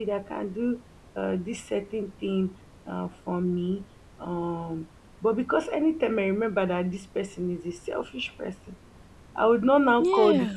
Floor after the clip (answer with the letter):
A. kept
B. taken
A